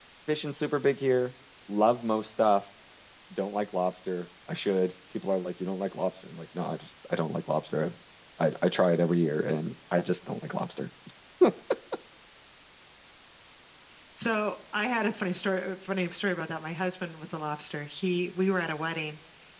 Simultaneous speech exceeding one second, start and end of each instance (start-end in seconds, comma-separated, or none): none